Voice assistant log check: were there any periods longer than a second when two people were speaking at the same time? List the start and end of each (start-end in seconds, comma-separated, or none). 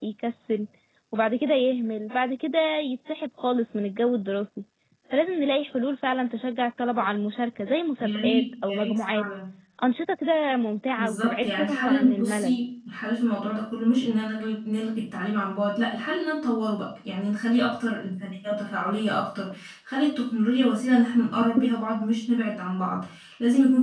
8.0-9.2, 11.0-12.6